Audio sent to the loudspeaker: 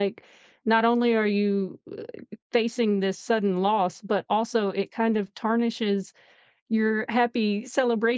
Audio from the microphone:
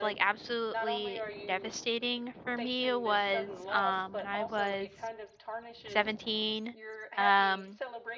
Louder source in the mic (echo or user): user